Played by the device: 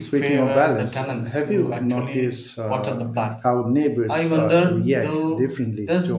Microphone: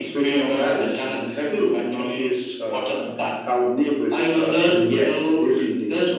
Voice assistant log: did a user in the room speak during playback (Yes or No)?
Yes